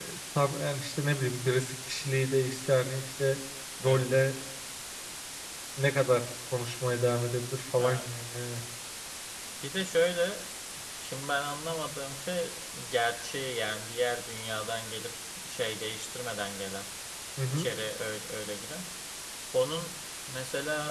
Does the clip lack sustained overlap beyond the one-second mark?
Yes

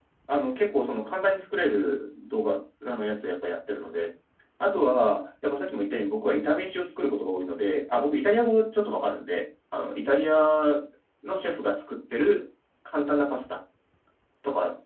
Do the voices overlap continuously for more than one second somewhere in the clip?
No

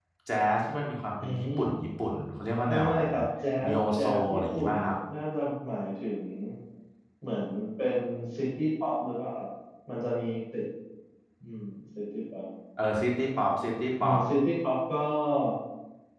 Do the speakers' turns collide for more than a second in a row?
Yes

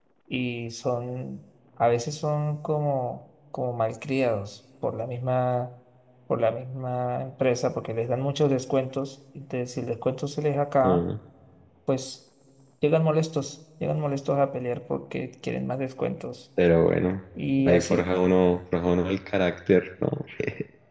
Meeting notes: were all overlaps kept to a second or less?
Yes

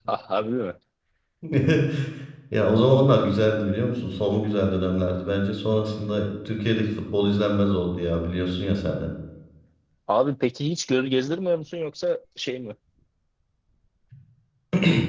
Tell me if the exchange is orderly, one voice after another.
Yes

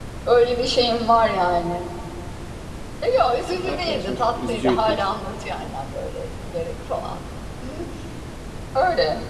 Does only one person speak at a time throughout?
No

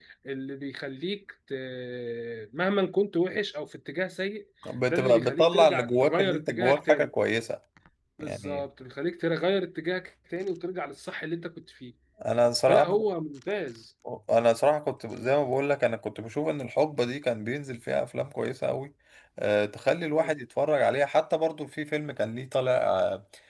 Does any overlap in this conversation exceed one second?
Yes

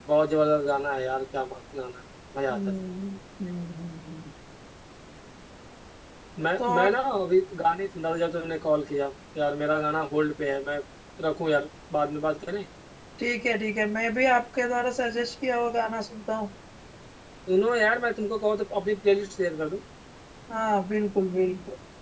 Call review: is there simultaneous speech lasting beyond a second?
No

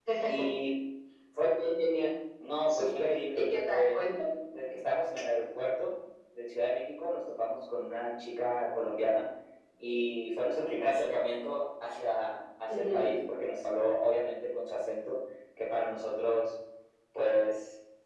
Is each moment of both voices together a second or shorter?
No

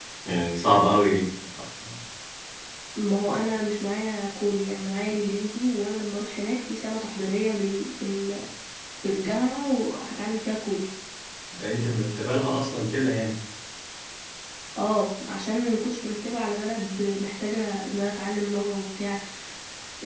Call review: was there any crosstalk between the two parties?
No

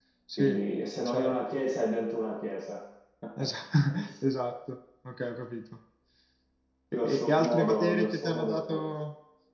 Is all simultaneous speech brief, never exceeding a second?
No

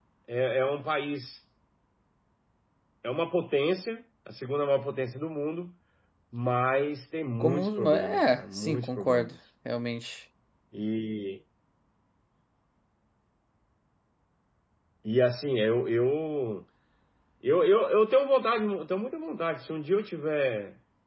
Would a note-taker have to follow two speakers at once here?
Yes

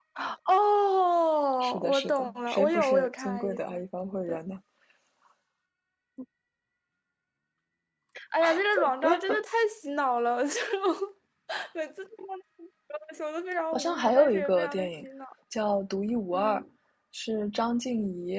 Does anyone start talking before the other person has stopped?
Yes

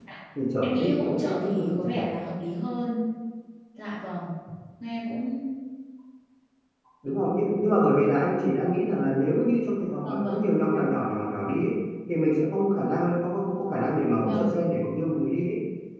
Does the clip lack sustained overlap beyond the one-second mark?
No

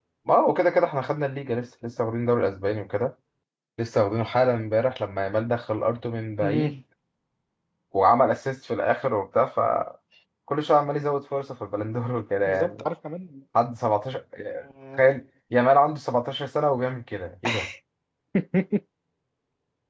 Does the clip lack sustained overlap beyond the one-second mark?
Yes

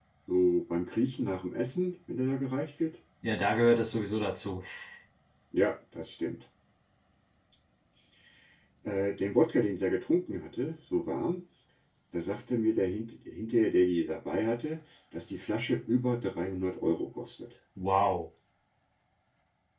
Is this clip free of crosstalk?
Yes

